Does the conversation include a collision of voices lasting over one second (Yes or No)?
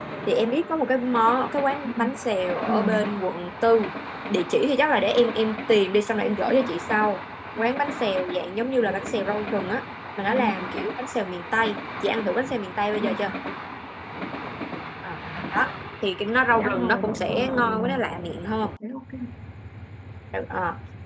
Yes